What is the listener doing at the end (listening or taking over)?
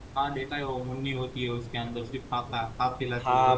taking over